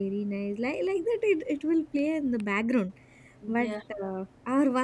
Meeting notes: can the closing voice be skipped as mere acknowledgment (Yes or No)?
Yes